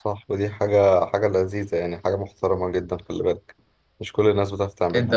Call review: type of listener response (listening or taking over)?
taking over